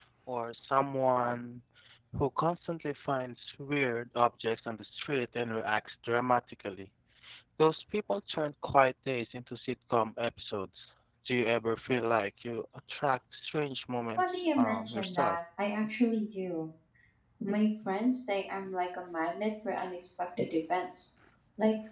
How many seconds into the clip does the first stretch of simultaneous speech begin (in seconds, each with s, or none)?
14.2 s